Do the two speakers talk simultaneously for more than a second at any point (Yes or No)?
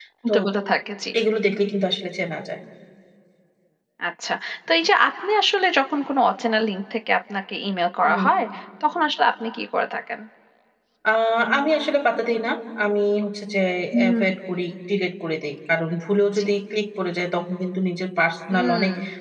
No